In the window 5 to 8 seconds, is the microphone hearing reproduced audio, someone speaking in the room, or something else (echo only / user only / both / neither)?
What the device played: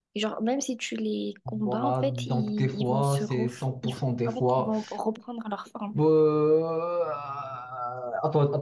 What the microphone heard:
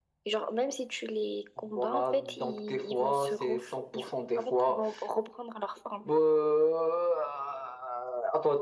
echo only